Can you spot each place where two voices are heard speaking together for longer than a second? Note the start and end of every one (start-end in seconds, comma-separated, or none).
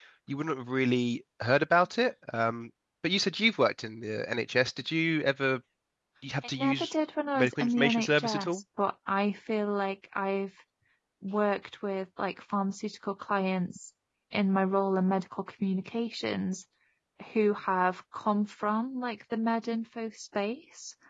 7.3-8.6